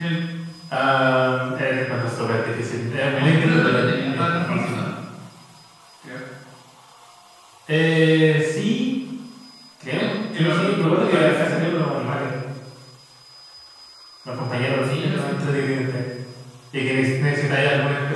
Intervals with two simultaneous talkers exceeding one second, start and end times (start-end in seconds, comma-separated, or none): 3.1-4.8, 10.0-11.6